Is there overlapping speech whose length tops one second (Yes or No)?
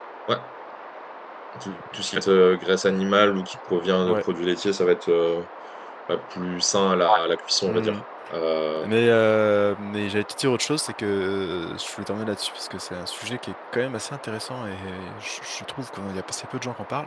No